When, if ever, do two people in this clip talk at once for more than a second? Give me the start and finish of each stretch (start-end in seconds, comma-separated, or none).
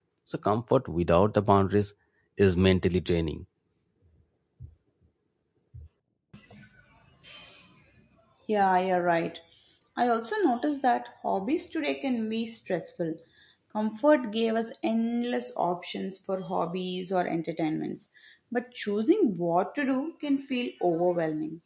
none